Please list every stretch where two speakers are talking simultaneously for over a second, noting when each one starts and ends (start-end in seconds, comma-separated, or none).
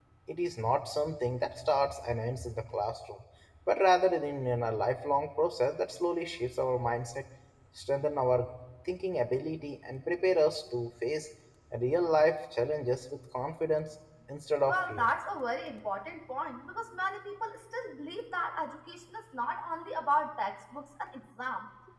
none